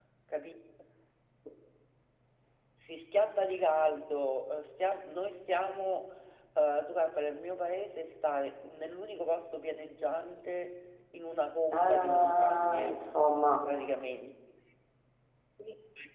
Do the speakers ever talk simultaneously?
Yes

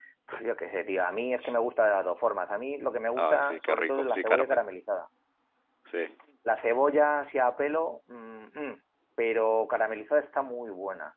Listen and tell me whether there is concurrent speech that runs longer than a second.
Yes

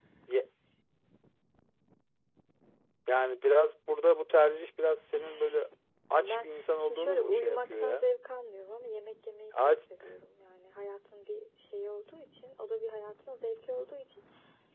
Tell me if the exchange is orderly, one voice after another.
No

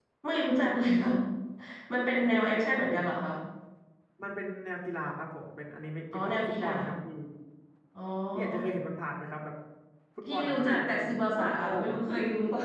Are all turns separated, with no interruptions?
No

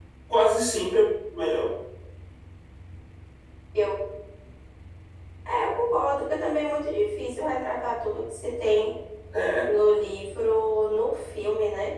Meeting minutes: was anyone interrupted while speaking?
No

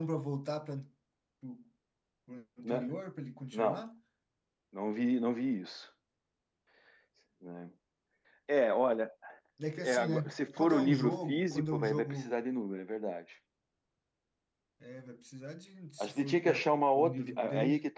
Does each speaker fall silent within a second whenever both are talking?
No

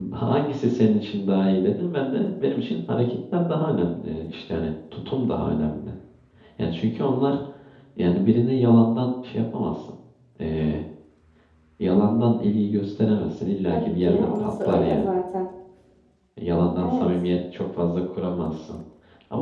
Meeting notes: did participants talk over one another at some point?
Yes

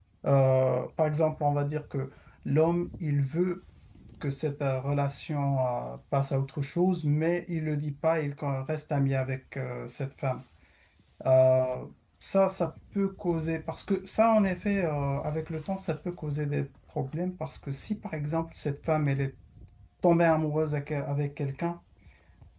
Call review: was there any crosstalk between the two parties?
No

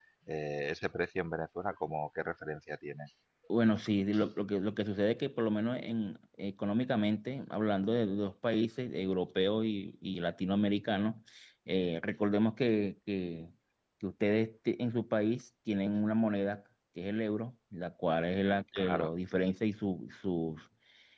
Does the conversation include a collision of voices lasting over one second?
No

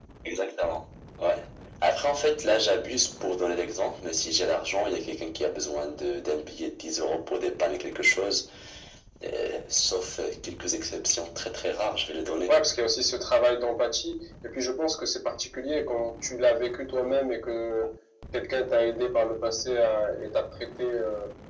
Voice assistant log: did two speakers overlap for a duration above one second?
No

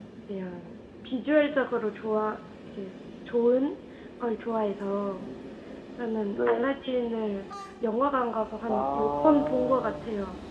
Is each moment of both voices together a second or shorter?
No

